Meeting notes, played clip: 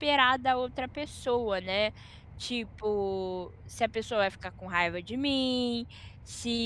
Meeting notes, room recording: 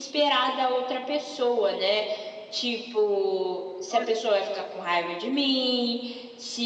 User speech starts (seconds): 4 s

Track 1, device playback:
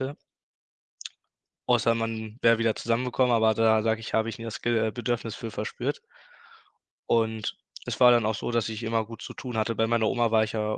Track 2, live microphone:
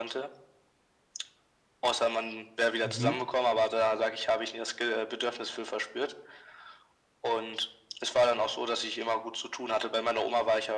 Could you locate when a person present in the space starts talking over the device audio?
3 s

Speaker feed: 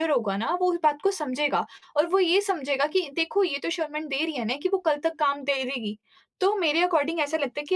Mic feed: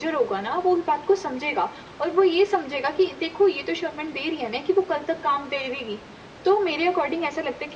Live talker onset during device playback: none

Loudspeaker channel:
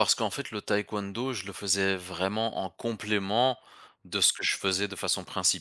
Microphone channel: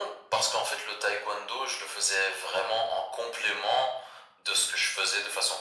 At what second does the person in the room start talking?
none

